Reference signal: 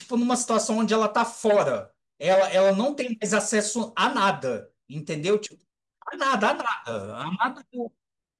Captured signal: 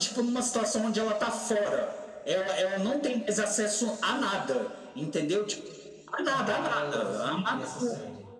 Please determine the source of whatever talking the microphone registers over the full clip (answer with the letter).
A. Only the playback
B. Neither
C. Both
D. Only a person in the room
C